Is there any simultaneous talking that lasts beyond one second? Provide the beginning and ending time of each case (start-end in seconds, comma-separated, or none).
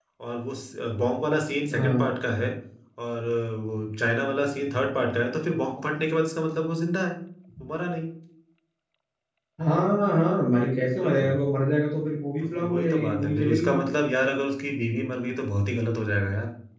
12.4-13.8